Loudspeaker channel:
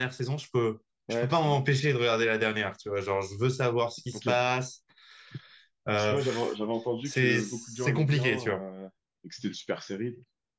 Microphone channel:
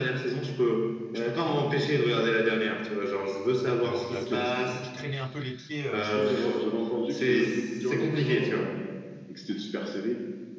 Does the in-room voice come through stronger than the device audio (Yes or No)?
No